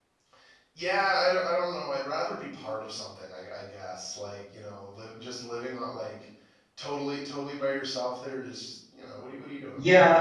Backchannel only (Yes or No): No